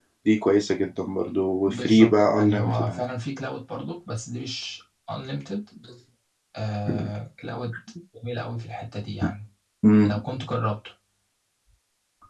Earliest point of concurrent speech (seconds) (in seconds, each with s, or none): 1.6 s